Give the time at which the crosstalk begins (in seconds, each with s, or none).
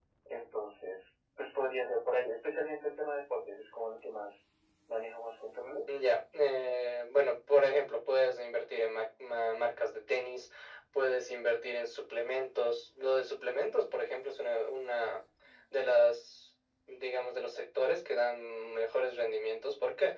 none